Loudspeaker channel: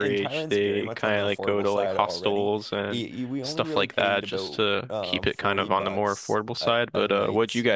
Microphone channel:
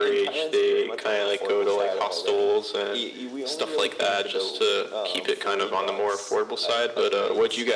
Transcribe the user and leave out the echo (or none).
none